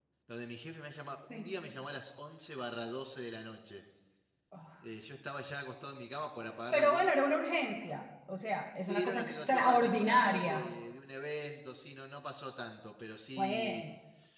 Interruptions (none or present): present